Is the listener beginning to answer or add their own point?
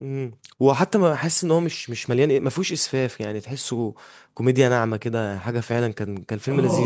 Yes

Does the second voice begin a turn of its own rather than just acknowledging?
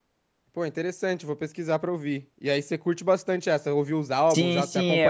Yes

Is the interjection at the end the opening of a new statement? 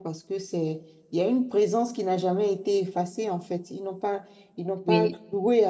No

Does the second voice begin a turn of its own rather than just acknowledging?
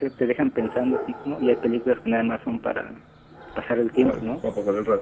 Yes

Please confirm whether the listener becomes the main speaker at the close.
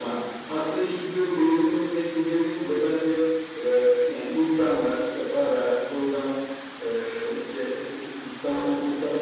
No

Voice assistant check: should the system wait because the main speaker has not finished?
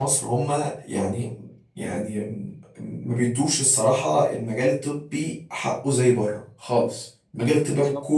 Yes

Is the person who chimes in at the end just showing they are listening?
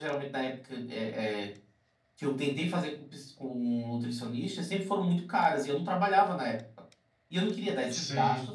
Yes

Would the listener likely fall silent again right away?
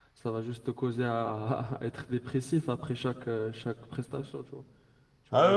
No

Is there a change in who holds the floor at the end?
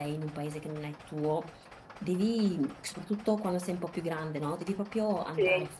No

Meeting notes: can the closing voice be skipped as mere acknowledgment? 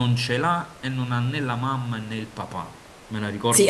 No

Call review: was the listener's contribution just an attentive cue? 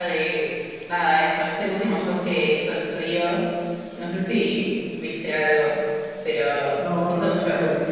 No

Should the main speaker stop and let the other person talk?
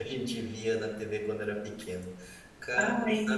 No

